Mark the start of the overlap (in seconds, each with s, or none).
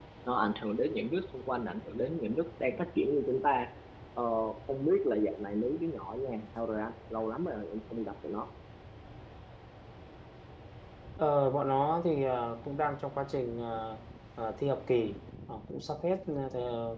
none